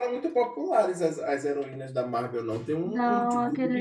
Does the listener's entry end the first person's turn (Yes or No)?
Yes